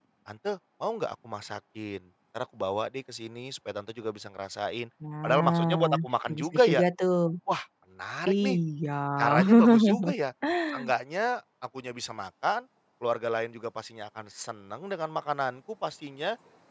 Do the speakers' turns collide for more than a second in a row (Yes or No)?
Yes